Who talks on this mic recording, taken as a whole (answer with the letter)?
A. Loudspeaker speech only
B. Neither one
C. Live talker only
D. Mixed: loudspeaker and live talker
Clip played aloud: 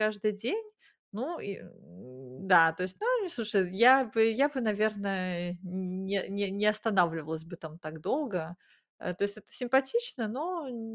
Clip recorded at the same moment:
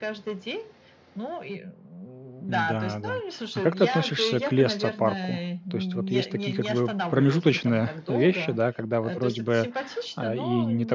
D